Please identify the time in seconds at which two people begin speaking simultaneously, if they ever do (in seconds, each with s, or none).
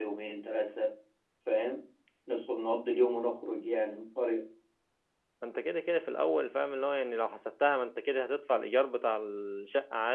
none